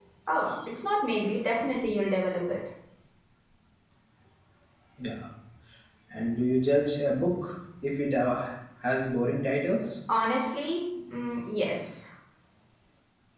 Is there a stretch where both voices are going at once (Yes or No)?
No